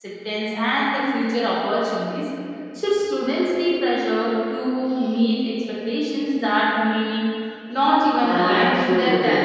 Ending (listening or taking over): taking over